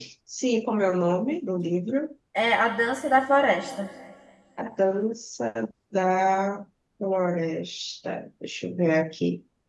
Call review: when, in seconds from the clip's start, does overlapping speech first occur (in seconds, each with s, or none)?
none